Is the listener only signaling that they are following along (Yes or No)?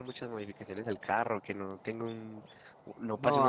No